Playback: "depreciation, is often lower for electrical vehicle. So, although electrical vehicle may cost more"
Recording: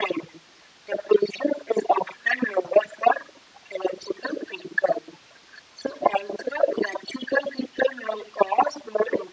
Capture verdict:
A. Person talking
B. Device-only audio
B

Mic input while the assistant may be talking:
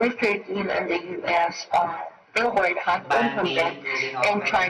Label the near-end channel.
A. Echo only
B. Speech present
B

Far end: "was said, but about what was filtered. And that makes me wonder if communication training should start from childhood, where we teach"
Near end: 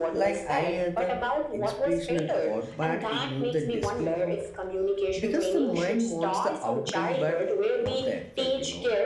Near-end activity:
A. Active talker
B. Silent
A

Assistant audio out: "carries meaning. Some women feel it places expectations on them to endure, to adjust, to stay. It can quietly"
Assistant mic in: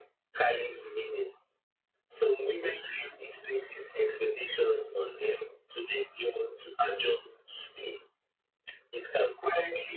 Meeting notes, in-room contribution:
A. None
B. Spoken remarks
A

